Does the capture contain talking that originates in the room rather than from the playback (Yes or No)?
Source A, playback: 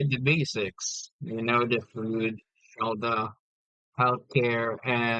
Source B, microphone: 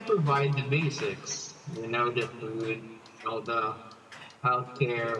No